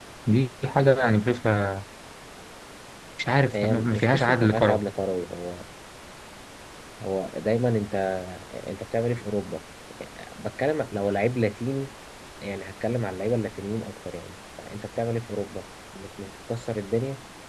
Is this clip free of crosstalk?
No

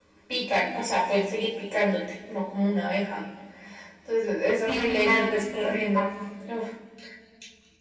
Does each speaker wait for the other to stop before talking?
No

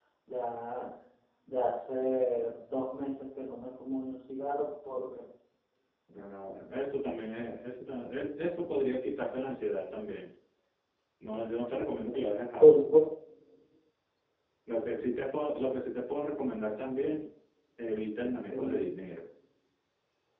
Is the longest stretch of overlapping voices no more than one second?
Yes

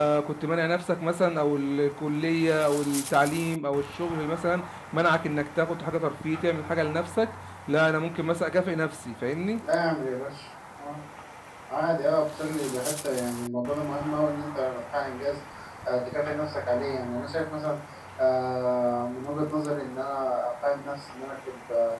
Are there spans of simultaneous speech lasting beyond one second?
No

